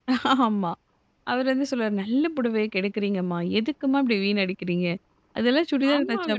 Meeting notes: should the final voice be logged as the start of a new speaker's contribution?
Yes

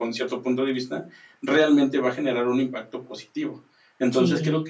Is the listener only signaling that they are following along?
Yes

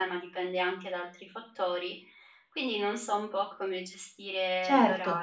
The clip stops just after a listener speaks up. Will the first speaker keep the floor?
No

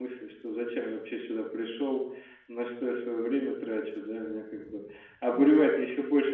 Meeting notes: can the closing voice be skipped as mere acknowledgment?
Yes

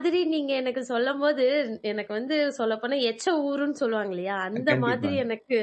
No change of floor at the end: Yes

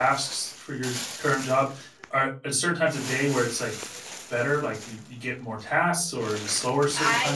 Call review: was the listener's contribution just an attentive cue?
No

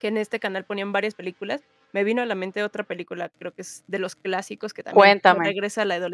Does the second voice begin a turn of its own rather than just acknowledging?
No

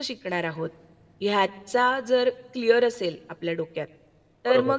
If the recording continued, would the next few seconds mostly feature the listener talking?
No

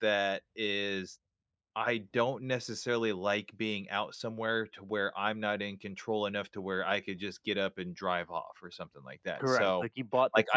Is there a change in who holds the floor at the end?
Yes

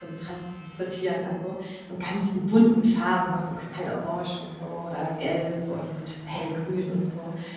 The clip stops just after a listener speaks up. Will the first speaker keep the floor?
Yes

